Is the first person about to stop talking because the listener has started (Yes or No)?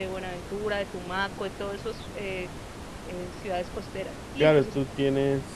Yes